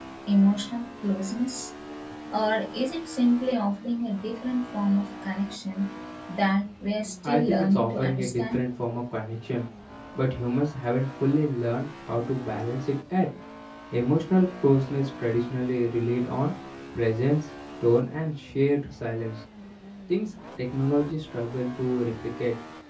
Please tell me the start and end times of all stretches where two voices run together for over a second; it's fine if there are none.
7.2-8.6

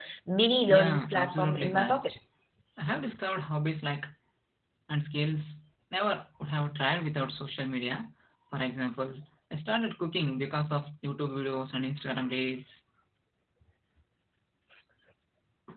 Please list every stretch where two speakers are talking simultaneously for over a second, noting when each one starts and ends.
0.7-2.1

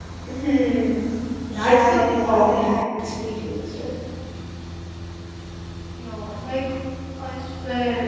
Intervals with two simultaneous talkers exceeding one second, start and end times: 1.5-2.8

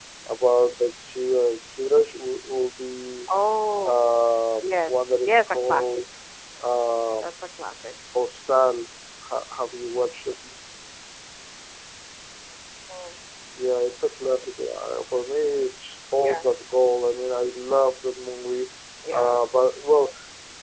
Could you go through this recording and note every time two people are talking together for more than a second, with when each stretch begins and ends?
4.6-5.9

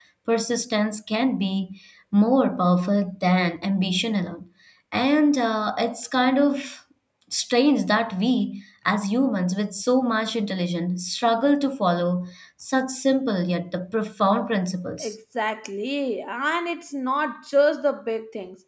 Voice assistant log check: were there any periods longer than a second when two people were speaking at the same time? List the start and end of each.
none

